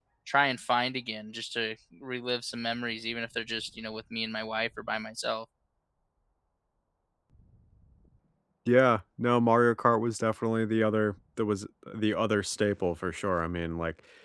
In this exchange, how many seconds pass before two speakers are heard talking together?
none

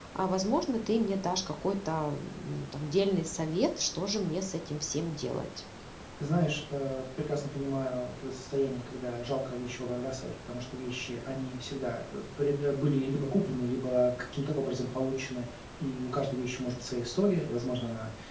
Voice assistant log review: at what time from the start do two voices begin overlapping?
none

